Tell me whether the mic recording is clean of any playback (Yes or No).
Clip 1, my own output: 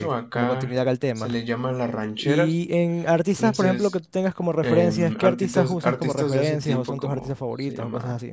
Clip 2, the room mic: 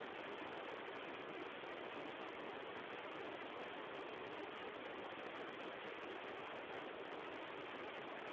Yes